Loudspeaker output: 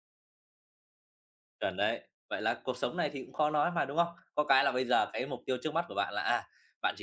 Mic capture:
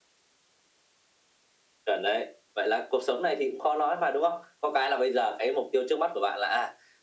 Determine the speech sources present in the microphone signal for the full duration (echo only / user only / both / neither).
echo only